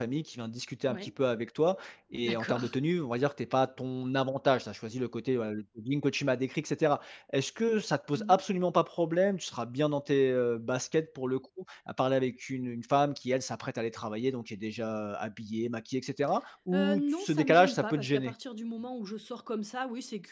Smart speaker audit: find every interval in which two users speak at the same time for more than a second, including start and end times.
16.7-18.3

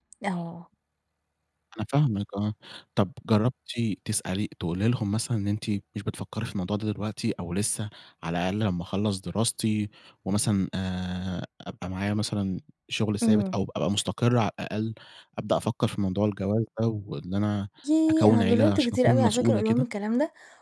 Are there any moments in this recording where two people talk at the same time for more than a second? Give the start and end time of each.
18.1-19.9

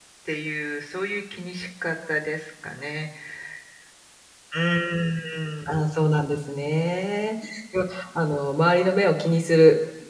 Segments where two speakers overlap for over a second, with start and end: none

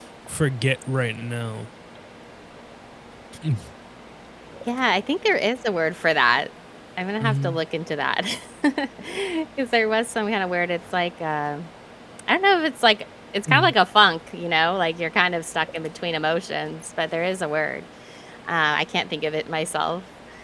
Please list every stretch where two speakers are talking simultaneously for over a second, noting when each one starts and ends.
none

